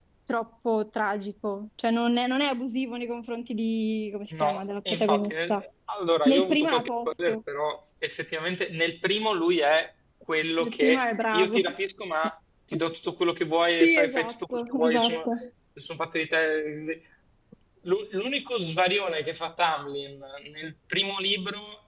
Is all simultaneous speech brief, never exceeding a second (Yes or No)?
No